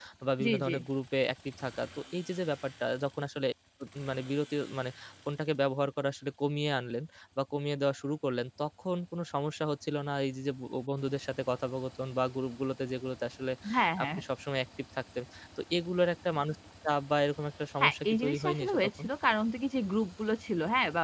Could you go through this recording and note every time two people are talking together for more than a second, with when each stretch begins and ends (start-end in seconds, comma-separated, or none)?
17.8-19.1